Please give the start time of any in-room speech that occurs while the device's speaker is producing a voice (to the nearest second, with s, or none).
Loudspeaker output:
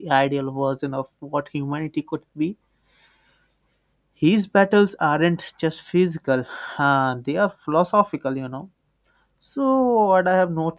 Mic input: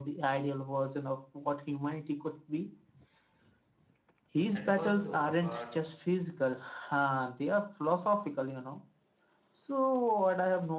5 s